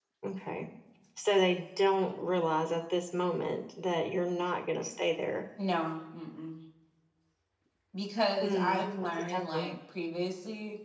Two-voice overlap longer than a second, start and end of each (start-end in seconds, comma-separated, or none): 8.4-9.7